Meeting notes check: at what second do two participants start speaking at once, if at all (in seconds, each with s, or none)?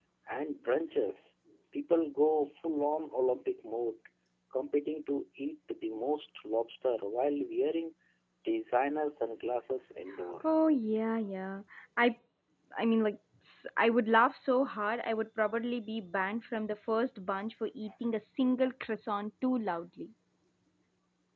none